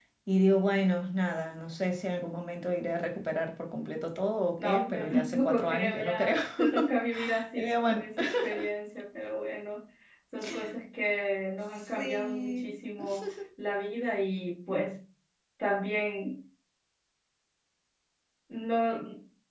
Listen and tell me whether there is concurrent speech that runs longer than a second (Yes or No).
Yes